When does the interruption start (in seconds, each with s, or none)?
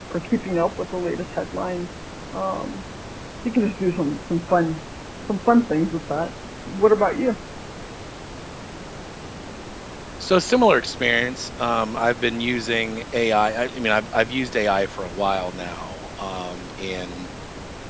none